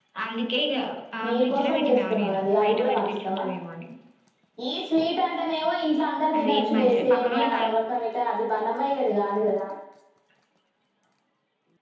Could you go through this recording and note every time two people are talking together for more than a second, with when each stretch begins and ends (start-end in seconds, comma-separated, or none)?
1.2-3.4, 6.4-7.6